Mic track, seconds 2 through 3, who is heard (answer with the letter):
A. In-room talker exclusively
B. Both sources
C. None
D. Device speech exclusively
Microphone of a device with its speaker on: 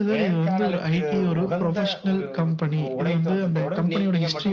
D